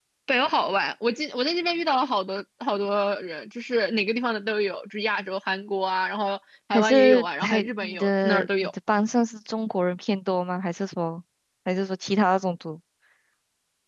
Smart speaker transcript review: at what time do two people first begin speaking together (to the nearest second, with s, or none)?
7 s